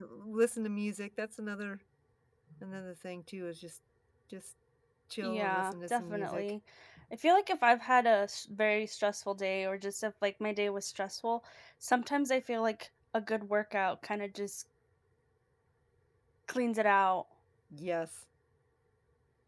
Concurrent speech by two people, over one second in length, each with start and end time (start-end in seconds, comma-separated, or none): 5.2-6.5